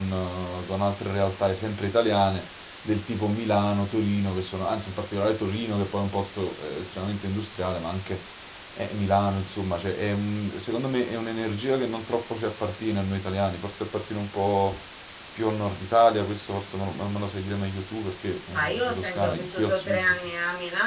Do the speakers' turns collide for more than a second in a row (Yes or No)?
Yes